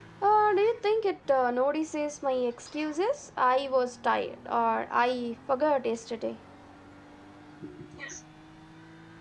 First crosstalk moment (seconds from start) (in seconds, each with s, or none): none